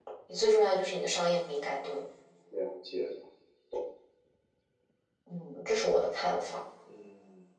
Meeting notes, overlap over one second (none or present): none